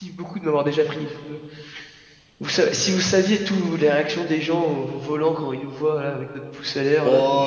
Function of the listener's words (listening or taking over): taking over